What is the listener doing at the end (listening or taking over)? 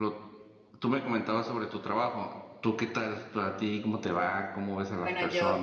taking over